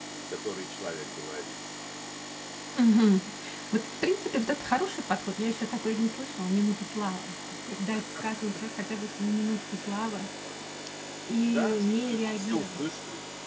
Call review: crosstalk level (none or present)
present